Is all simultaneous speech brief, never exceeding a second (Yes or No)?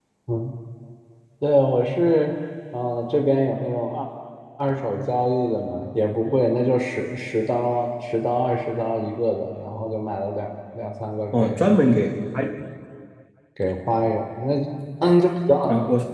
Yes